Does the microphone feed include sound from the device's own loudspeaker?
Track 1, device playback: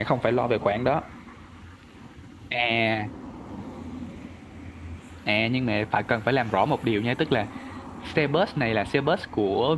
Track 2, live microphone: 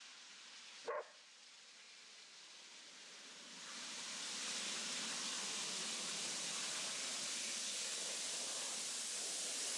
No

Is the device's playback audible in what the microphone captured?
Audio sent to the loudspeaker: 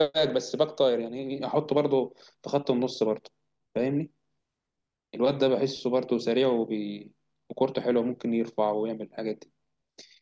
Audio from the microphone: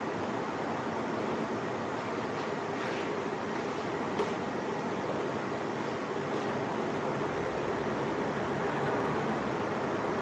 No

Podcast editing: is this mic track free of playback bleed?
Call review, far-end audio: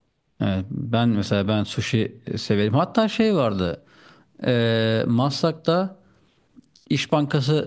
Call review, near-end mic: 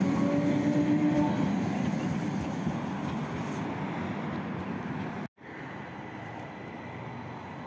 Yes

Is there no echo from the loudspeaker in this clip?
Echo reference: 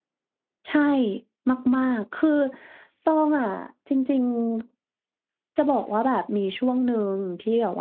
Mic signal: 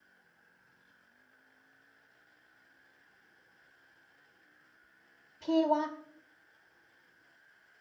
Yes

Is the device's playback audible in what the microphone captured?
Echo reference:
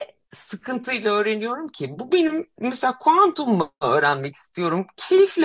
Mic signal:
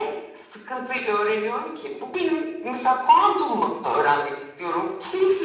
Yes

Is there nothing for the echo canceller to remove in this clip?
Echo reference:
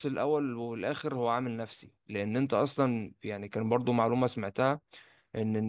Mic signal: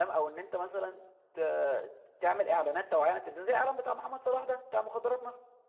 Yes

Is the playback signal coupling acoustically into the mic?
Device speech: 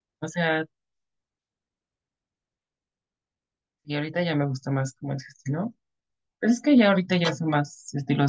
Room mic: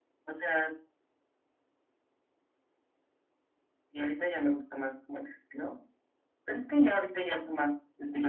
Yes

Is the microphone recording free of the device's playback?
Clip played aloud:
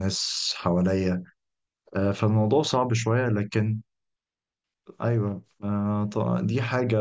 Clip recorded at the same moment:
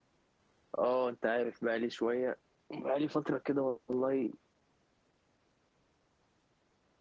Yes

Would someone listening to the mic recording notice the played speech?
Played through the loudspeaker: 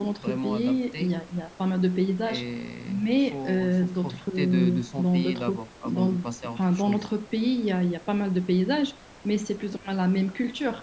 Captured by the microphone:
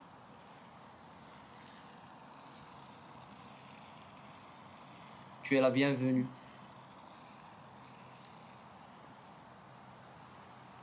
No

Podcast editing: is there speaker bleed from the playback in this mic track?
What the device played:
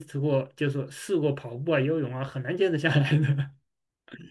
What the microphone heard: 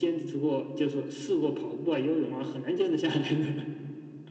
Yes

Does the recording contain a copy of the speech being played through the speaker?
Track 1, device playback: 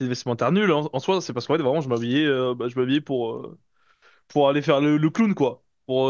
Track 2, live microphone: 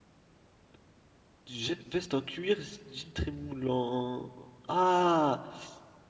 No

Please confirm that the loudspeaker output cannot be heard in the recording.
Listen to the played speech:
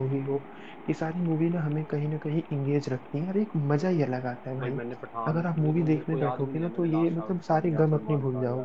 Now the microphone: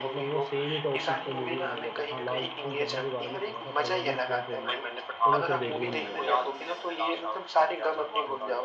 No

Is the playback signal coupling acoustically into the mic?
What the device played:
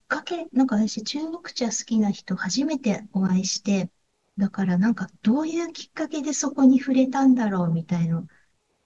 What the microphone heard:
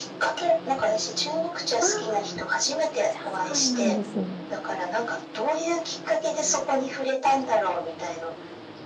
Yes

